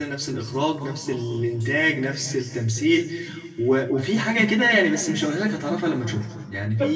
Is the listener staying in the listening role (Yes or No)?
Yes